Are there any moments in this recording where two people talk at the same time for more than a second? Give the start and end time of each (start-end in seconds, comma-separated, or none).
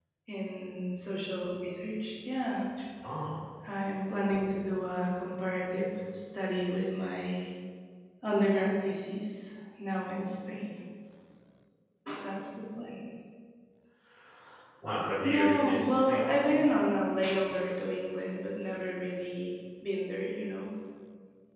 15.2-16.6